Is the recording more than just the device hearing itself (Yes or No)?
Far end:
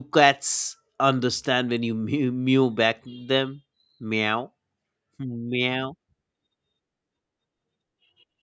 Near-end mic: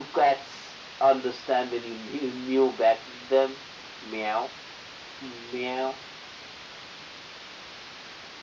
No